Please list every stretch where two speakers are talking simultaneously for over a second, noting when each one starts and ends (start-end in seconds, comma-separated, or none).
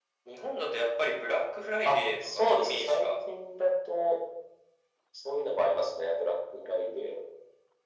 1.8-3.1